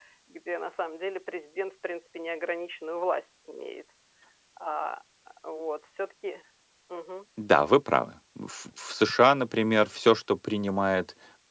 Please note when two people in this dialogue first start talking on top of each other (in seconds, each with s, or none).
none